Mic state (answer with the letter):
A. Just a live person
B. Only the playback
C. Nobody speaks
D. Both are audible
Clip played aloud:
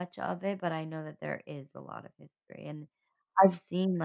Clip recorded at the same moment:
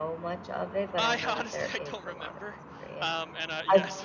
D